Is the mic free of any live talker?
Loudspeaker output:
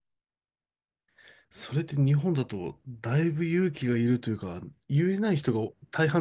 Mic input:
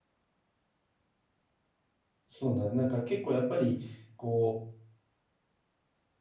No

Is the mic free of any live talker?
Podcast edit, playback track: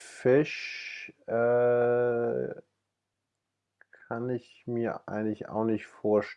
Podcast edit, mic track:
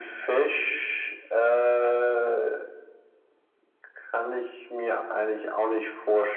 Yes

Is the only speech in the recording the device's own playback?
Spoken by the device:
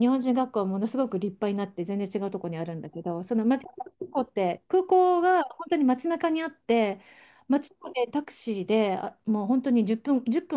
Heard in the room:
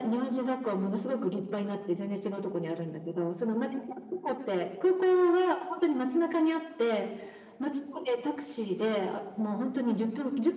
Yes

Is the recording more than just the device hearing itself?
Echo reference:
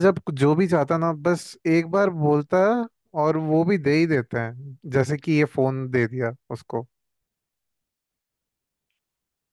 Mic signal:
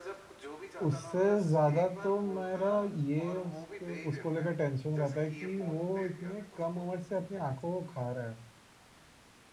Yes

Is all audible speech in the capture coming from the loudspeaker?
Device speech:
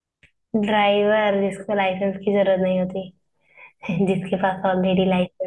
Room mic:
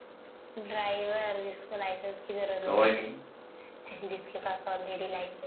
No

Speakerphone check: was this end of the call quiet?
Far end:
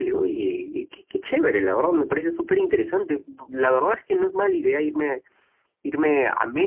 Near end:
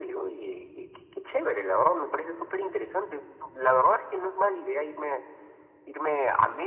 Yes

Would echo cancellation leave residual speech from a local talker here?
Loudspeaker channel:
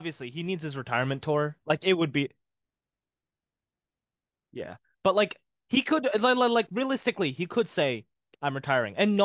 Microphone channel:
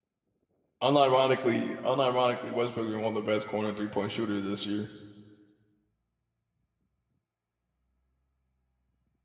Yes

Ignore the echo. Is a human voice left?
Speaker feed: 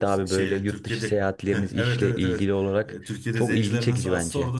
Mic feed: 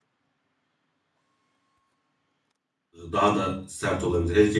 Yes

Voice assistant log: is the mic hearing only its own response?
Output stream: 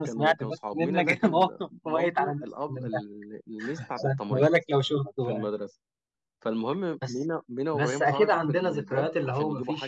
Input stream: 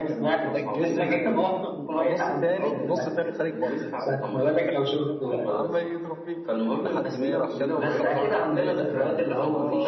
No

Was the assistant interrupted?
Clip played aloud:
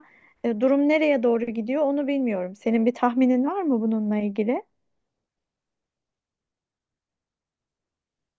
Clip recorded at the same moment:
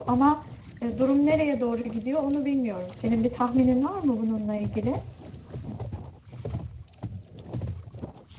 No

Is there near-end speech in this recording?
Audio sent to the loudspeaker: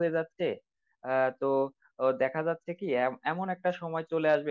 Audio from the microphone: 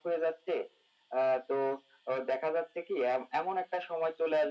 No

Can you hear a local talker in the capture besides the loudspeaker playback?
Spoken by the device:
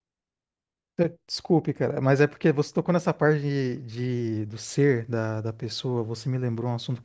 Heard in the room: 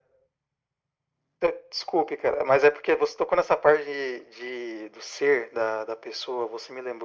No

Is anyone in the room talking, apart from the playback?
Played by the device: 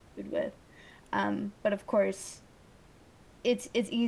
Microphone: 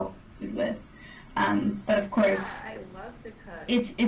Yes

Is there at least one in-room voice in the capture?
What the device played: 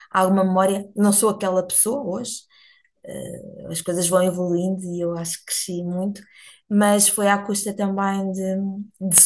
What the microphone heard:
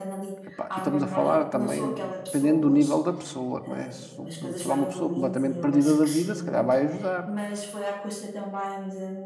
Yes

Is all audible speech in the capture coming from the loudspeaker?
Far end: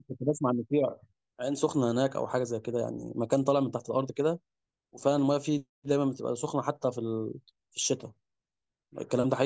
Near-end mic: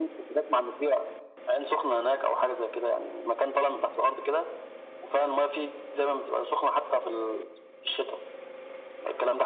Yes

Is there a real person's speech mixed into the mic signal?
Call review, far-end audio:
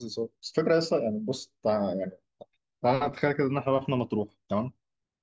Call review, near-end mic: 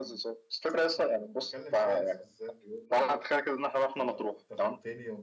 Yes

